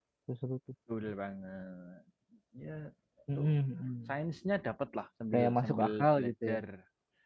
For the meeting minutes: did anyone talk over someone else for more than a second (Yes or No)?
Yes